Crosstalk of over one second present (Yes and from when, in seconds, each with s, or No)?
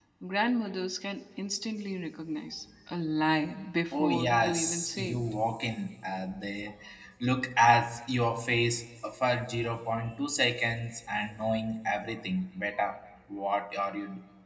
Yes, from 3.9 s